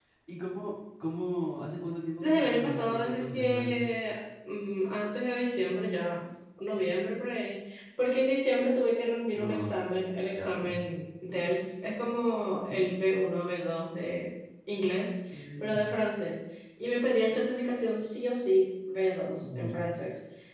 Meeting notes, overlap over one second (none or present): present